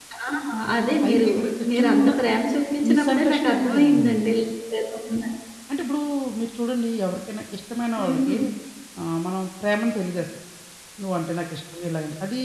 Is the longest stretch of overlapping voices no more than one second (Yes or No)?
No